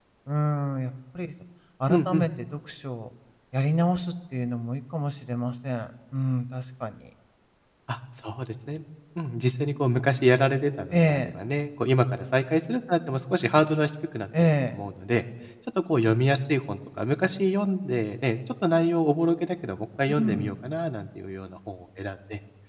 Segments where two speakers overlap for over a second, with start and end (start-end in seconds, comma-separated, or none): none